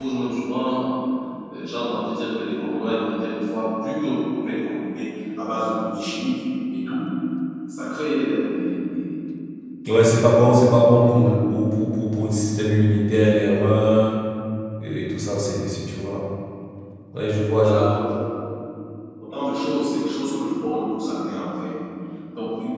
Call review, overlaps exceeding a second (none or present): none